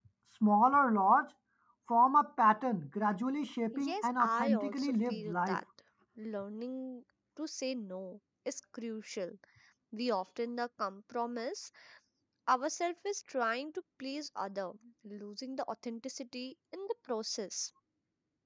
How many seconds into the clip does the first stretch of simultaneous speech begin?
3.7 s

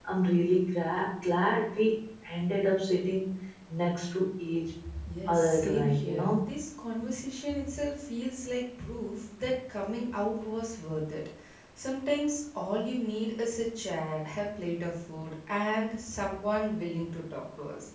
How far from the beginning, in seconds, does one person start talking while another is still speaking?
5.3 s

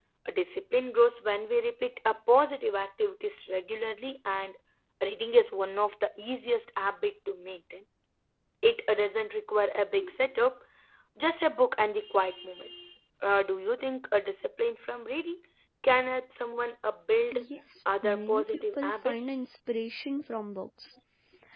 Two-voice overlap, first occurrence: 18.0 s

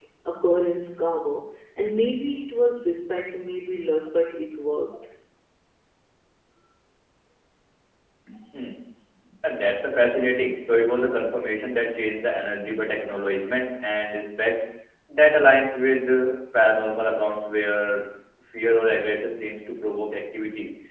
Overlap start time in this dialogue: none

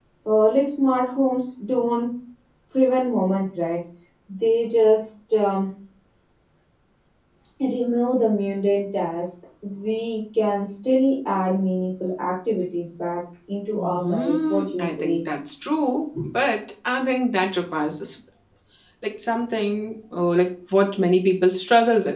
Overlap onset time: 13.8 s

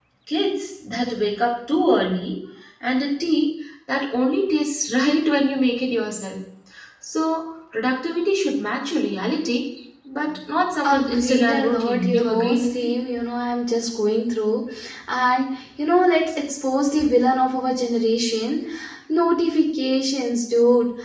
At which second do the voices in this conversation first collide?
10.8 s

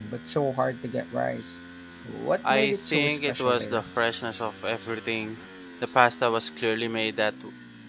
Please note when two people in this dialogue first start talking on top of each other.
2.5 s

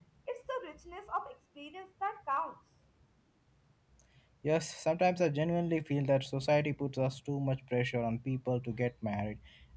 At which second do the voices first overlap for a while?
none

